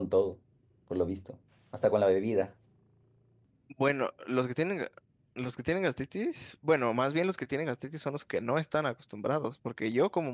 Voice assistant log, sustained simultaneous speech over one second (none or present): none